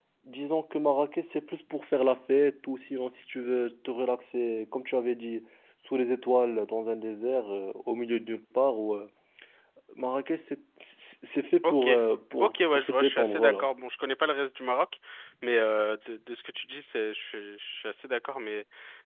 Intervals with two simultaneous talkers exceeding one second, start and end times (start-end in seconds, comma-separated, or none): 12.4-13.7